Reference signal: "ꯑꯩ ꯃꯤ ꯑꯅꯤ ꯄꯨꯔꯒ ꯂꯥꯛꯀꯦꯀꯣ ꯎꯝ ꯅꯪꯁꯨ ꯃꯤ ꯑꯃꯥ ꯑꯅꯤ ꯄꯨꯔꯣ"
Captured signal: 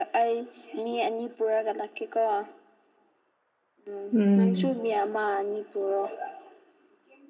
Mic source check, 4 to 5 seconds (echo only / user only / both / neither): both